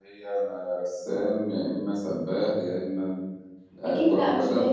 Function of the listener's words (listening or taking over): taking over